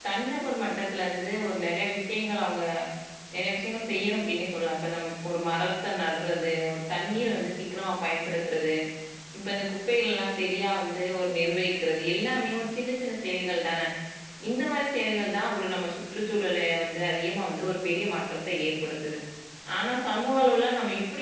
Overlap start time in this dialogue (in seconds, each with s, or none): none